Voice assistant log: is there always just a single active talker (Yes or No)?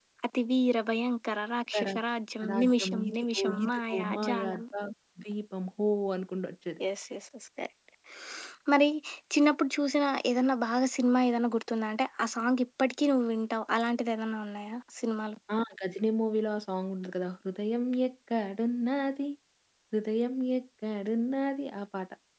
No